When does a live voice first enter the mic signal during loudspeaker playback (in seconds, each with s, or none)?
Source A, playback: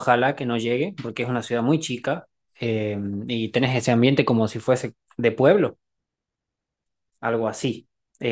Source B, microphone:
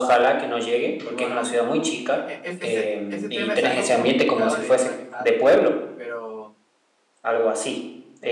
1.0 s